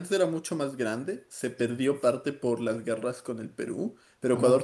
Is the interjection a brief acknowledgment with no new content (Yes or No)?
Yes